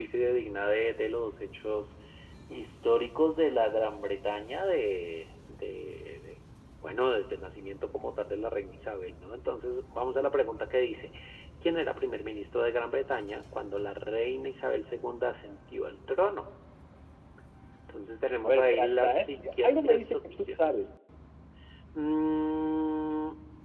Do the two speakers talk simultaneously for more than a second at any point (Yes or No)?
Yes